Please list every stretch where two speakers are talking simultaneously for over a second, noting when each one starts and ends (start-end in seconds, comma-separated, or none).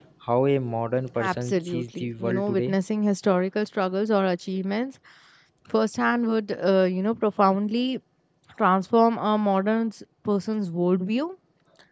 1.2-2.7